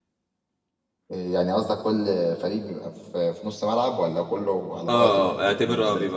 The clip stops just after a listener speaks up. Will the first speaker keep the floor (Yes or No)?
No